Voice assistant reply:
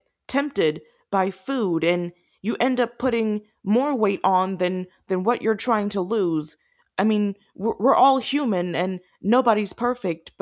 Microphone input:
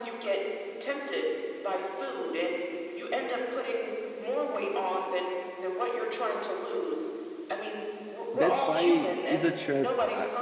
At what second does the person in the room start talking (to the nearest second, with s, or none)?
8 s